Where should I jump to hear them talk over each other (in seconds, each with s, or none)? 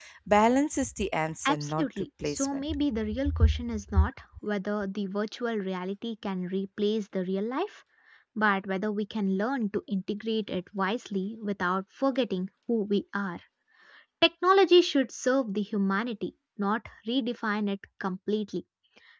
1.4 s